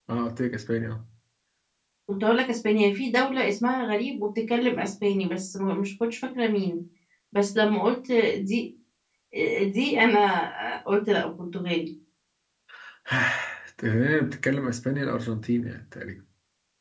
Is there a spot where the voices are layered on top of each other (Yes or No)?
No